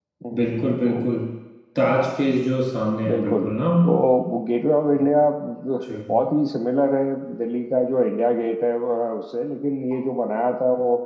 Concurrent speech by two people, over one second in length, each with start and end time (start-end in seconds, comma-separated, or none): none